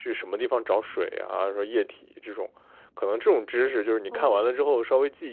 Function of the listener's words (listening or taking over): listening